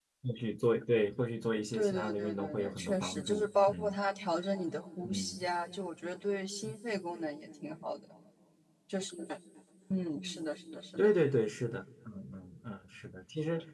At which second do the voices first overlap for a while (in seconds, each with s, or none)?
1.7 s